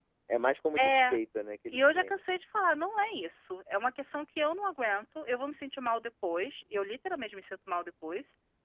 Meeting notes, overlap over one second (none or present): none